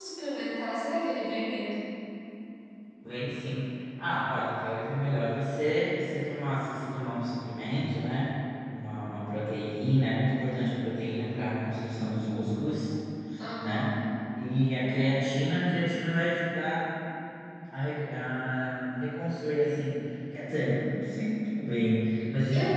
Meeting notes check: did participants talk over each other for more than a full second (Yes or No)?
No